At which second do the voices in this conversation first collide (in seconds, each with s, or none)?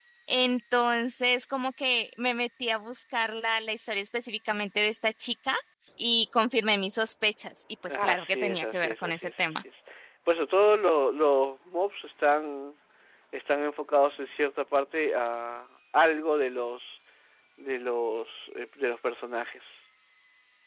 7.9 s